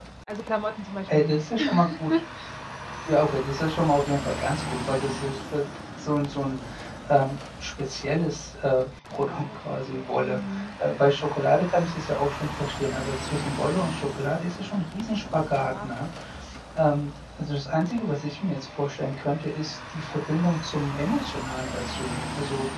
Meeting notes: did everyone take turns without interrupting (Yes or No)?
No